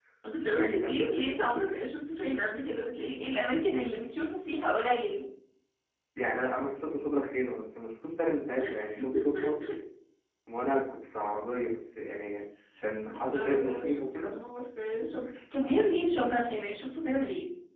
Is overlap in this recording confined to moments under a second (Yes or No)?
No